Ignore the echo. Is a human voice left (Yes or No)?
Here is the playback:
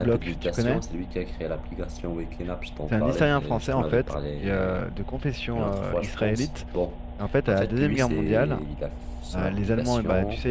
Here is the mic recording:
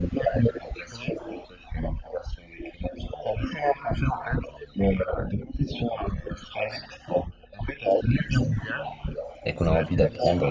Yes